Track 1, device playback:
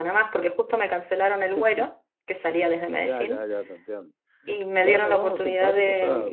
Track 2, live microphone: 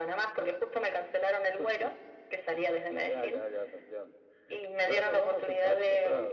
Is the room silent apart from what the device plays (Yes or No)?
Yes